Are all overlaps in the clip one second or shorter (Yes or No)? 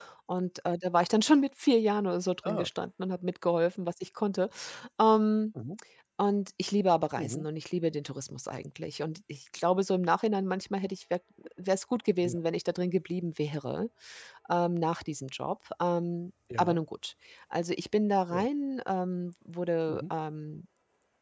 Yes